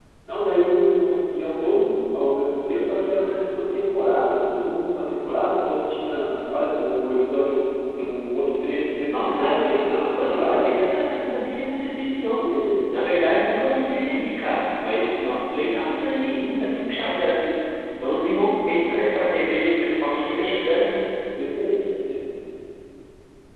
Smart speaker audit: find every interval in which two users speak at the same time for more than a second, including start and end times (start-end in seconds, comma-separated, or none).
9.1-10.7